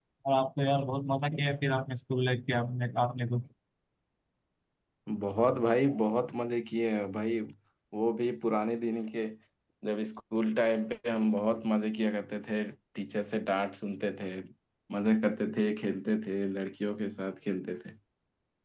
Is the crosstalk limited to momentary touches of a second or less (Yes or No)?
Yes